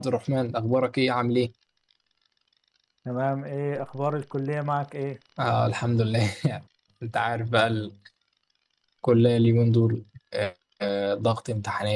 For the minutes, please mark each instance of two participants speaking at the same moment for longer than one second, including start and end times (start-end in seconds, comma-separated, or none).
none